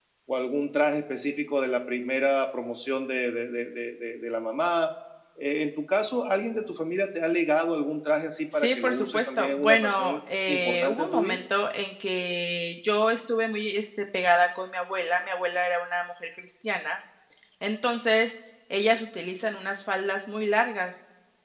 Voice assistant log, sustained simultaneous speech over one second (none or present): present